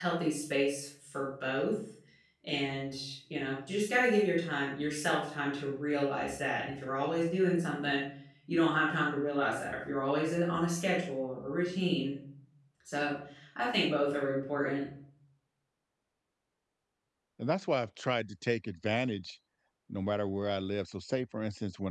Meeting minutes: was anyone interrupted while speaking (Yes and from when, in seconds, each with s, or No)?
No